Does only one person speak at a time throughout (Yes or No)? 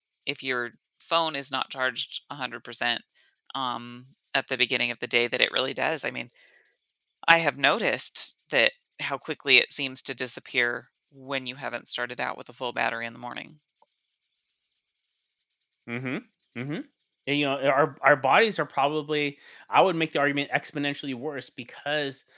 Yes